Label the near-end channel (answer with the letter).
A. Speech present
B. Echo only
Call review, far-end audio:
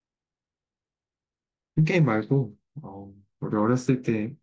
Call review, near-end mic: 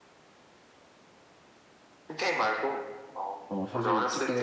A